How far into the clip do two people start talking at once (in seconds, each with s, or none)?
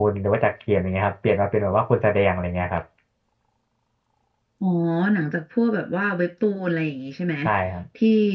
none